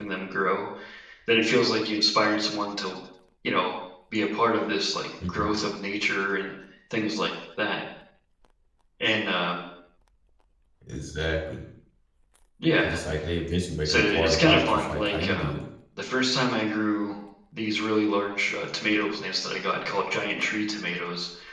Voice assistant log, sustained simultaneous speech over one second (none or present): present